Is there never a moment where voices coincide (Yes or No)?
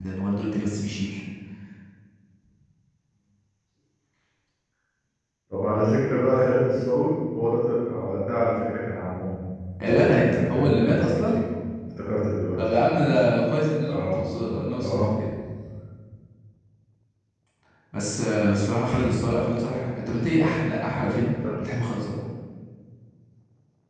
No